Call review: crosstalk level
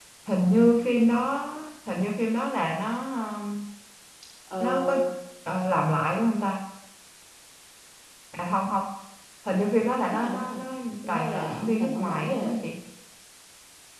present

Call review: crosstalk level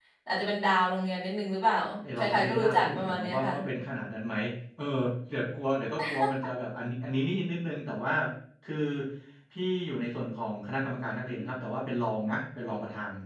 present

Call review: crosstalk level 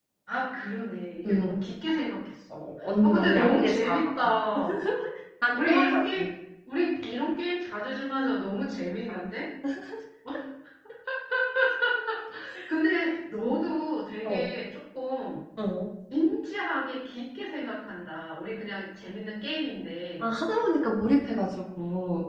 present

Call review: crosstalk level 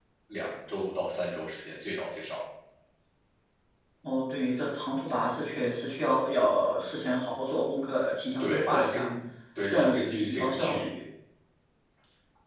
present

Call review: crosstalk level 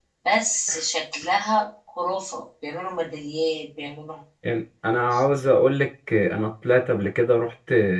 none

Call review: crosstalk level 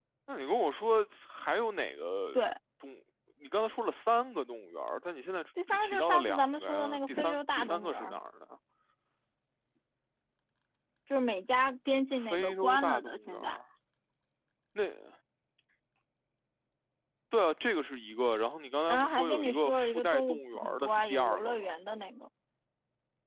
present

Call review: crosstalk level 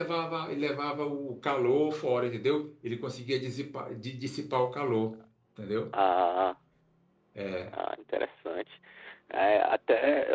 none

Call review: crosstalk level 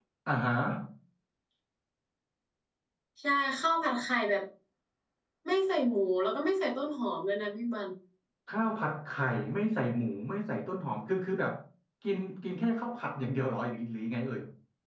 none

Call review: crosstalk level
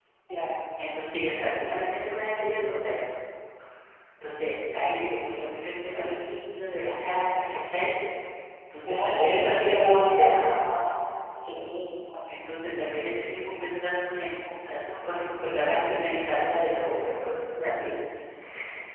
present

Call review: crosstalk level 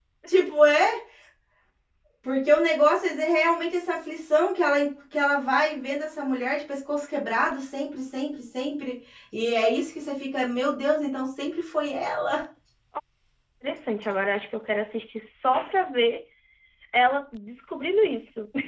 none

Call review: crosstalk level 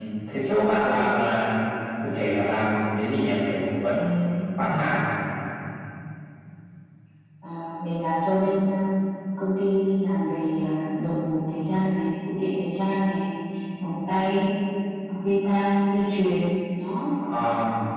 none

